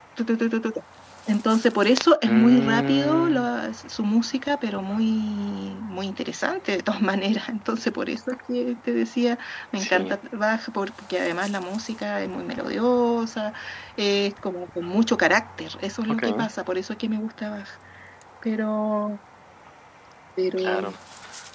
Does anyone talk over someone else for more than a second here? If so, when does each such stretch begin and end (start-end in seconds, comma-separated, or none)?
2.3-3.5